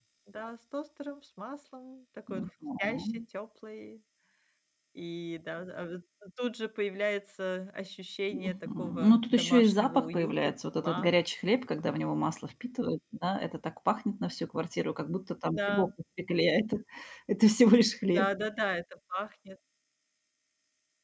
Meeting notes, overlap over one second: present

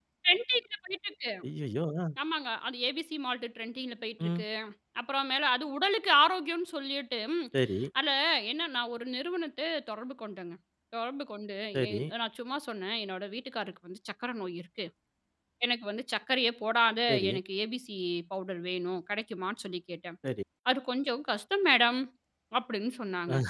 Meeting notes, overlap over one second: none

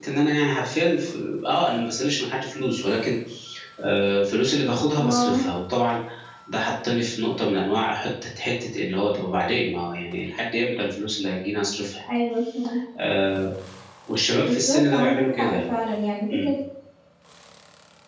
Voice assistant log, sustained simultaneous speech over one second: present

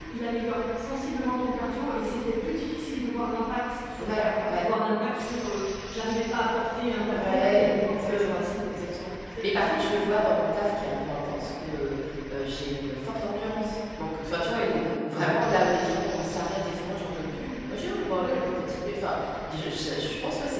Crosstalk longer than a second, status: present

